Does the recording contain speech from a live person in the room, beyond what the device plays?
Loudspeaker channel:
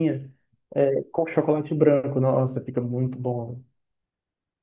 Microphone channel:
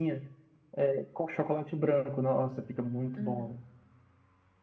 Yes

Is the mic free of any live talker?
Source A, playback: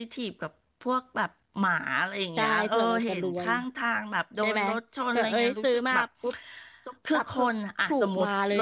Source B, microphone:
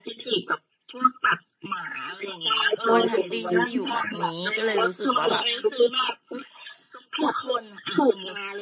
No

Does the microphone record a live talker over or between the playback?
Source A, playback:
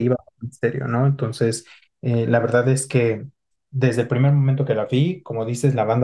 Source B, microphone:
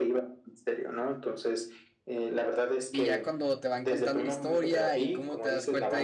Yes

